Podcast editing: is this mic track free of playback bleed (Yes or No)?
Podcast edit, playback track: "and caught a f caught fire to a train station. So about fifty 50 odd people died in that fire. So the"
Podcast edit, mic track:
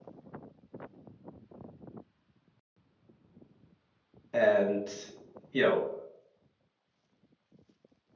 Yes